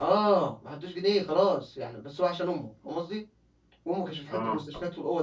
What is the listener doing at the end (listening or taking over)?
listening